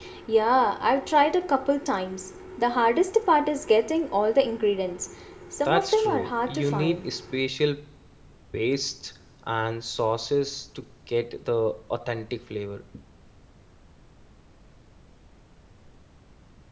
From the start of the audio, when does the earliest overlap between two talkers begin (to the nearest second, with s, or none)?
6 s